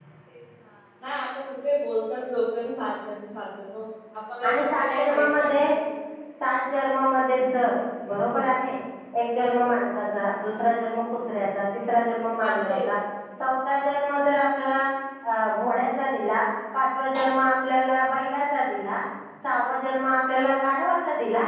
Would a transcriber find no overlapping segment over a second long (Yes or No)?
No